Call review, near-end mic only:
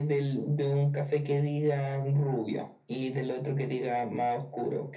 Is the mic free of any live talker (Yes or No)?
Yes